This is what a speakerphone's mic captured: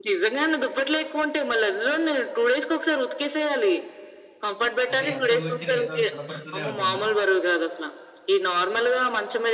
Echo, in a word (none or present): present